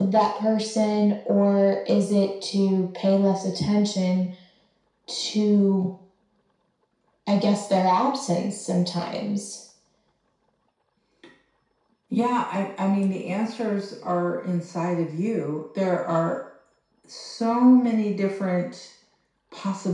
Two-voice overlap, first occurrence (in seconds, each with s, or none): none